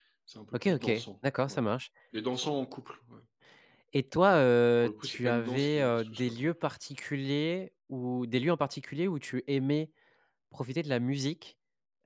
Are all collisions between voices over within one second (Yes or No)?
No